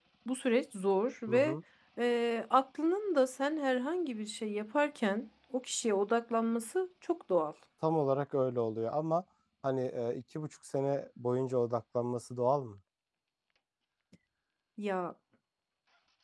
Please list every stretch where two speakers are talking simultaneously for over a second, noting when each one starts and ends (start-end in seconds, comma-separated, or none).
none